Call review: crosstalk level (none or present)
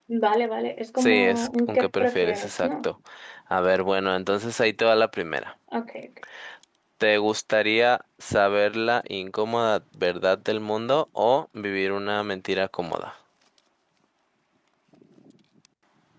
present